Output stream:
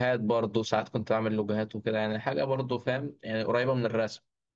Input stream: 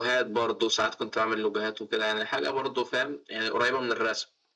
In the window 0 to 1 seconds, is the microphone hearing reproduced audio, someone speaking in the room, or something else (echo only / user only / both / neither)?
echo only